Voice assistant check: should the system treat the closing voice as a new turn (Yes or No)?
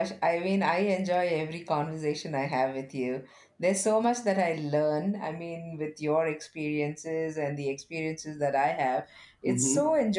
No